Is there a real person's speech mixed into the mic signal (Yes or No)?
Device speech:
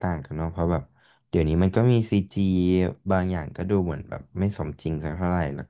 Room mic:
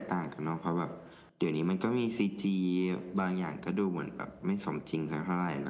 No